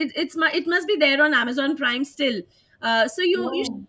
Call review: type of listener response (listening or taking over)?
listening